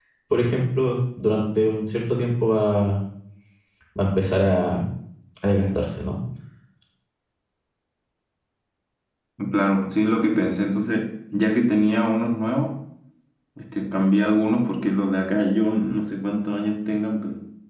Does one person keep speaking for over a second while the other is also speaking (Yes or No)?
No